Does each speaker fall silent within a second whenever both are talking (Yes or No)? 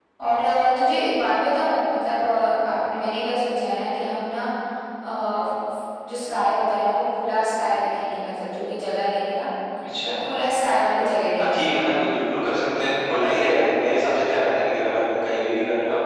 Yes